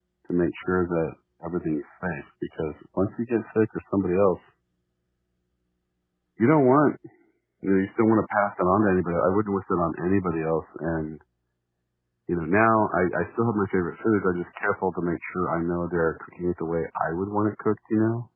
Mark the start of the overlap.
none

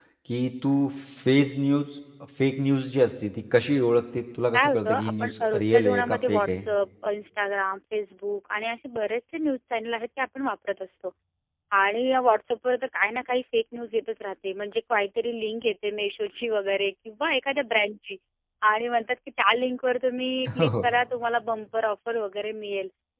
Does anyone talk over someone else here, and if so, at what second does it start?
4.5 s

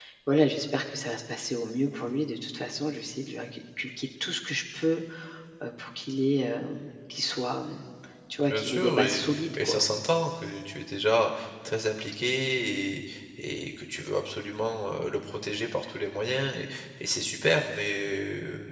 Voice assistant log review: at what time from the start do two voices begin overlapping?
8.4 s

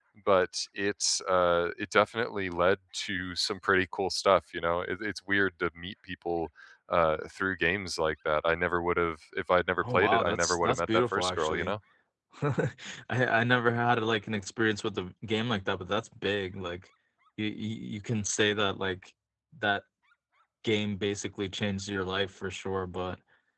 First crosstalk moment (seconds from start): 9.8 s

